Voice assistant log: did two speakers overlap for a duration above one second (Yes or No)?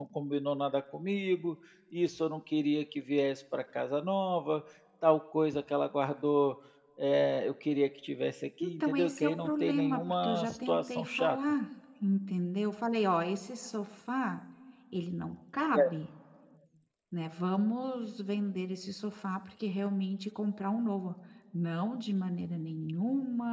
Yes